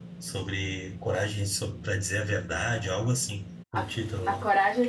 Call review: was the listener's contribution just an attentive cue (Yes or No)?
No